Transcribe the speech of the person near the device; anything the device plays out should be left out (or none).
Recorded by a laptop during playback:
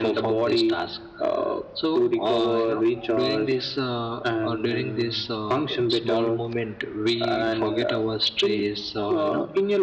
none